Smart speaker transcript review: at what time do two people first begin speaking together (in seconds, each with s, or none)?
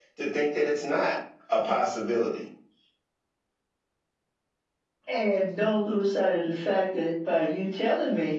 none